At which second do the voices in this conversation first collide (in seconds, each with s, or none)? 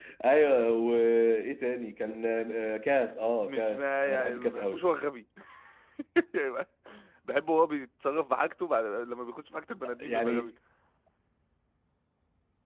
3.4 s